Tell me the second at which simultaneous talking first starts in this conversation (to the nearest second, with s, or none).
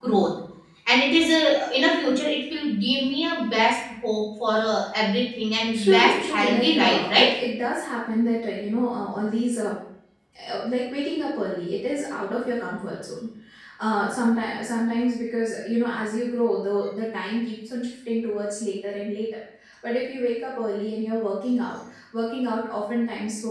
6 s